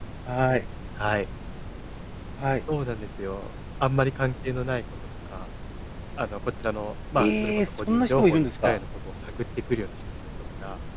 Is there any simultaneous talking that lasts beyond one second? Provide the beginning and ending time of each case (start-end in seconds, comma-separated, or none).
7.2-8.8